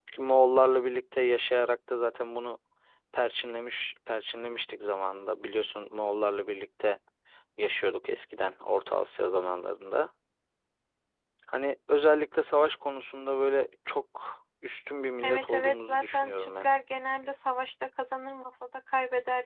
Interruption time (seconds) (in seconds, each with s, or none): 15.2 s